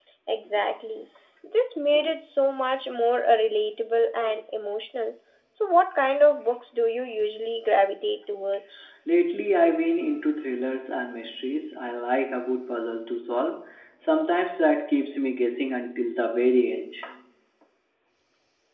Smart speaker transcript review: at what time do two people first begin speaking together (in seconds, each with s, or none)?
none